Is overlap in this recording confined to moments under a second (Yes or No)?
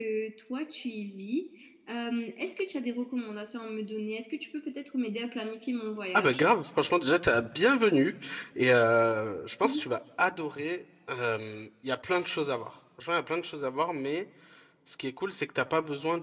Yes